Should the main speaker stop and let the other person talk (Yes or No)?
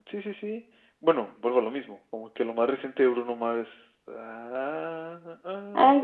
Yes